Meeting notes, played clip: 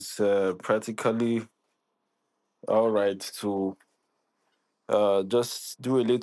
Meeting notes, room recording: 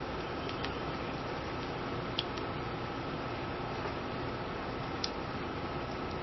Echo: none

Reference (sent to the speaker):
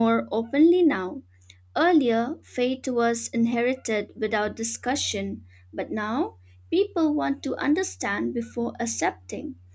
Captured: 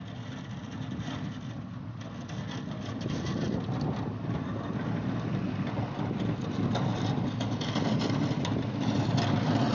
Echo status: none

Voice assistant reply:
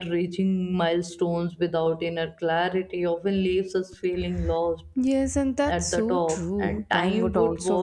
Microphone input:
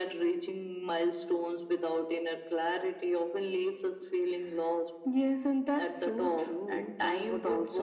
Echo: present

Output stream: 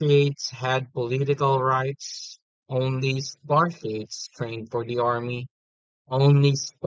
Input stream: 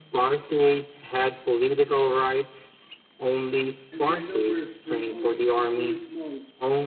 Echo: present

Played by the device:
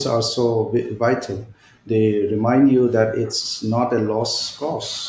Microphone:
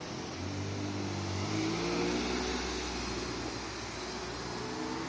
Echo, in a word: none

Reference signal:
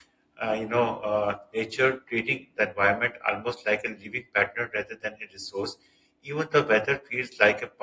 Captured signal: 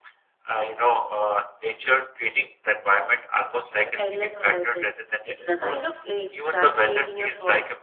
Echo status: present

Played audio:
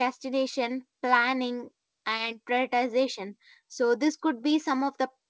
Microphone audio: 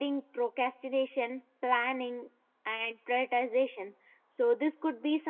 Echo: present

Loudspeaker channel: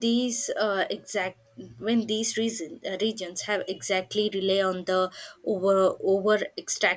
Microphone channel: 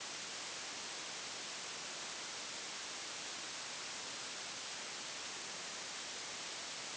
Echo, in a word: none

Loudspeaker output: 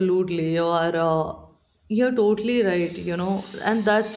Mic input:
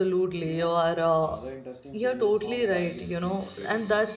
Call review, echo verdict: present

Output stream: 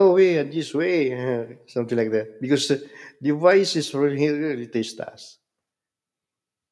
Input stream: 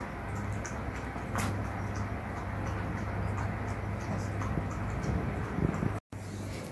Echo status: none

